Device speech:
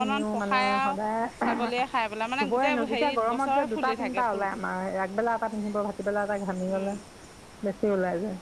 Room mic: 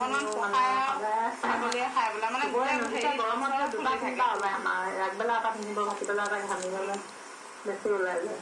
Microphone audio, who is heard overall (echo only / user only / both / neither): echo only